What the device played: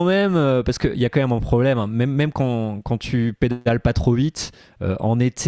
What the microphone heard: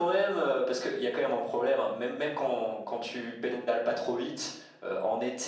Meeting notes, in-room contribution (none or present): none